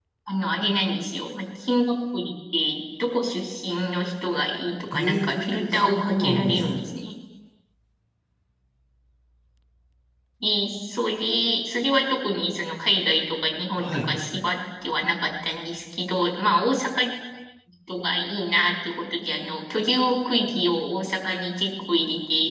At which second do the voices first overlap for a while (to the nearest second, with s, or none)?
5 s